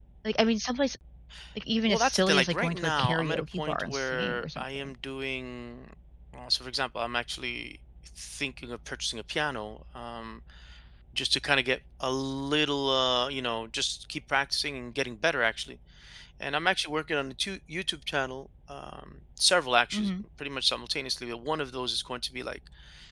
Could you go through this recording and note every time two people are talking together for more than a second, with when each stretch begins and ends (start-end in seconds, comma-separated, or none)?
1.9-4.9